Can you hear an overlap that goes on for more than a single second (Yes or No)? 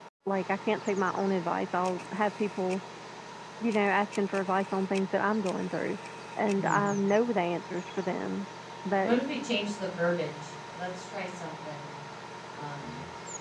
No